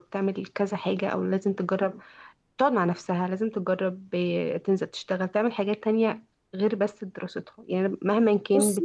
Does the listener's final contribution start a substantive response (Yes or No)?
No